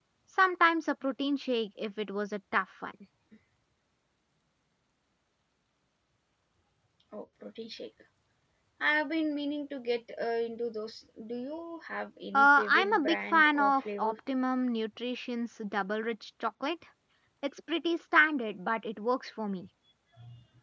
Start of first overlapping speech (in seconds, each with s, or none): 12.3 s